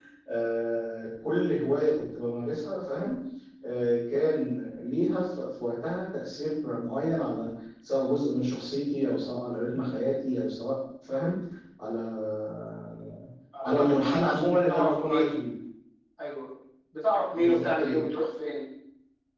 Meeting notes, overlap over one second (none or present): present